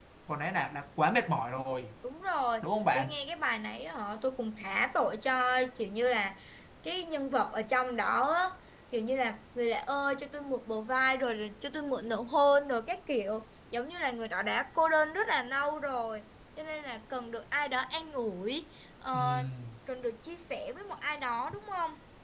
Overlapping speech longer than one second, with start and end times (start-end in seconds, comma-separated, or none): none